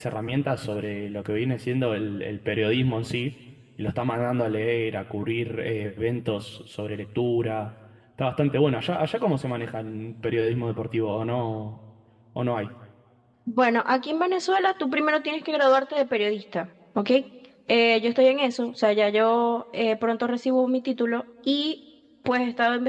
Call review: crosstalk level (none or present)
none